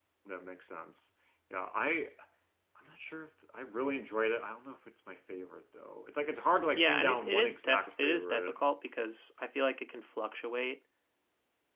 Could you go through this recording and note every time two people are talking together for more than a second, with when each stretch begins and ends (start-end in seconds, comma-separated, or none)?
6.8-8.6